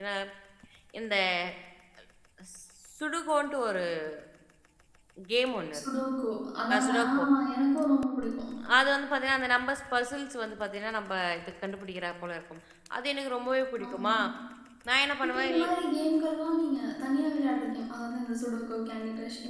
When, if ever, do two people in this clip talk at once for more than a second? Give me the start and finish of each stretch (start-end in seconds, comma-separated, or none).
none